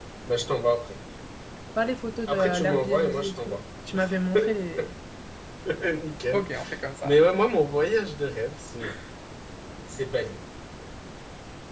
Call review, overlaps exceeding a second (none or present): present